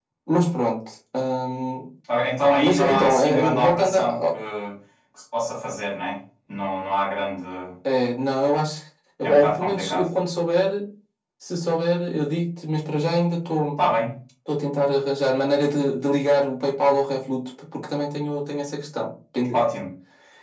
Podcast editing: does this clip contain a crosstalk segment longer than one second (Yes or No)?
Yes